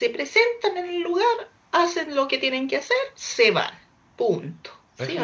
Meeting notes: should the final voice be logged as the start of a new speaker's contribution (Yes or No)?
Yes